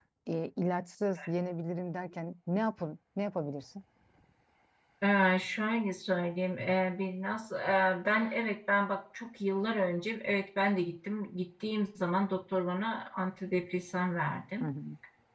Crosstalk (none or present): none